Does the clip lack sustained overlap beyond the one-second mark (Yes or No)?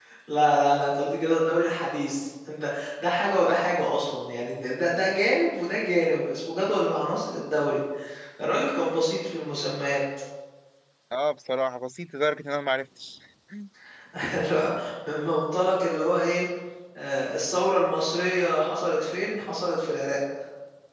Yes